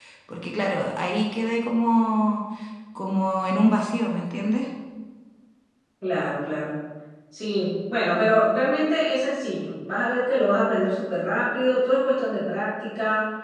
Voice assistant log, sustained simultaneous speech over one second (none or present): none